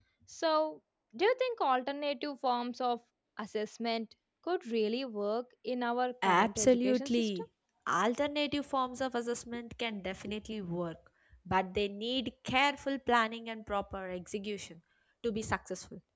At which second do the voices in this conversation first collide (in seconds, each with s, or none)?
6.2 s